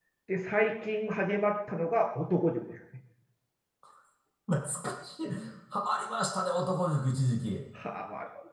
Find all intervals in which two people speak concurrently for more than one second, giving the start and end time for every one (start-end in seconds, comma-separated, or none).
none